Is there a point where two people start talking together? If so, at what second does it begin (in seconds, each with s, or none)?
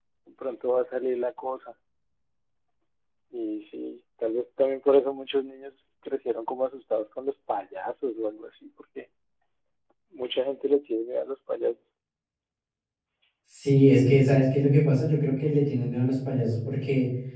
none